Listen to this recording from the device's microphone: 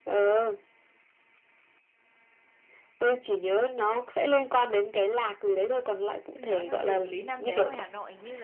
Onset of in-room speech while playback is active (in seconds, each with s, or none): 6.3 s